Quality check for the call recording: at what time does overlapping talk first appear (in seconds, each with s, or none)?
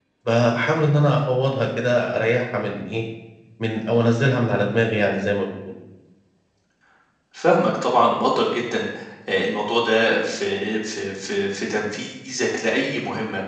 none